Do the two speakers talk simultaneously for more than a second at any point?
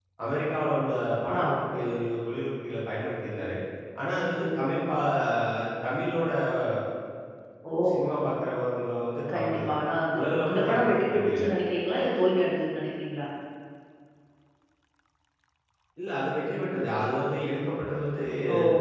Yes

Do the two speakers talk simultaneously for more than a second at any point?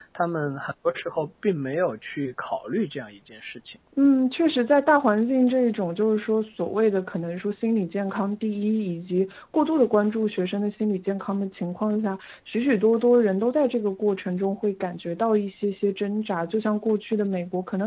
No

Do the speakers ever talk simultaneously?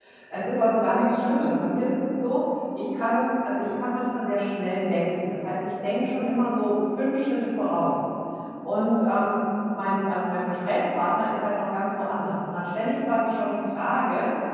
No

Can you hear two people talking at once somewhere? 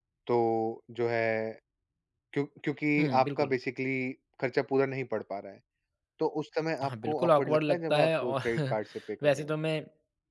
Yes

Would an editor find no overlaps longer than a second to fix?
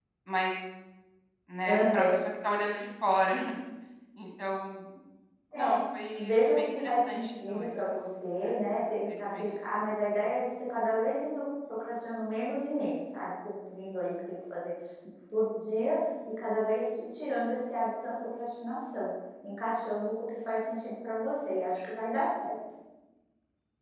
No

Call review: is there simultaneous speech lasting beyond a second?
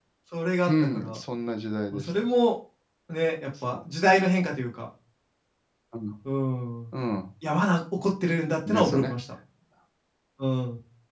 No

